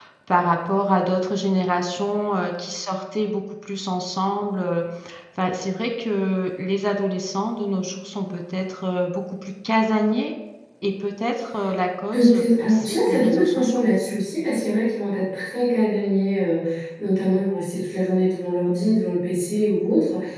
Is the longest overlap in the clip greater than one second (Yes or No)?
Yes